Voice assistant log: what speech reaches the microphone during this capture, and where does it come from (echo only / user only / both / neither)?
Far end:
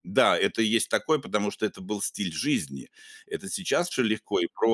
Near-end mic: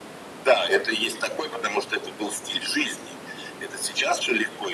echo only